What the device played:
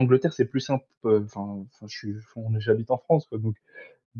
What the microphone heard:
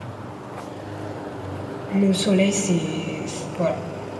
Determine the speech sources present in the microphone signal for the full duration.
user only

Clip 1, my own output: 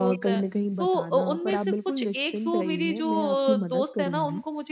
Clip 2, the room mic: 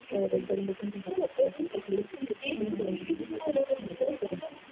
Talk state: both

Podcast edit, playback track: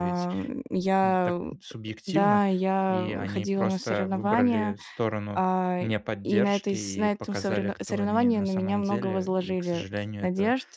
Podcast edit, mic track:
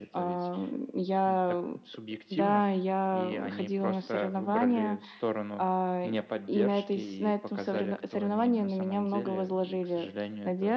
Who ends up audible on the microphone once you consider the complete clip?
echo only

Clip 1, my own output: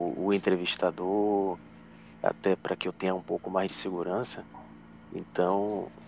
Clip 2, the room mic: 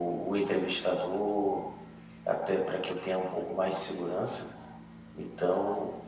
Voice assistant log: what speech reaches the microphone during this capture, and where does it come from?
echo only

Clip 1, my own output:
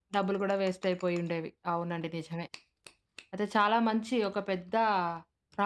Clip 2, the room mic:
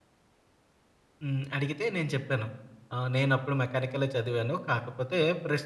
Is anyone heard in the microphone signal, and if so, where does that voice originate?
user only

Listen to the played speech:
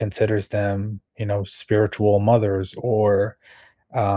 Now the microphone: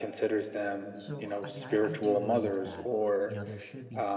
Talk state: both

